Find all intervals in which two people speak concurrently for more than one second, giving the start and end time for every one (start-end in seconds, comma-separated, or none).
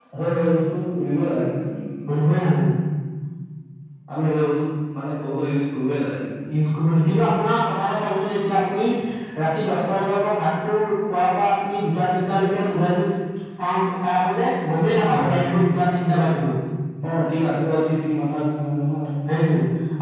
none